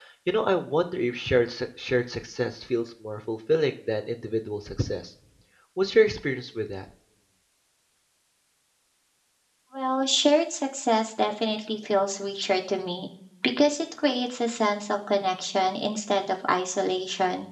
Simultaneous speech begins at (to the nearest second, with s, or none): none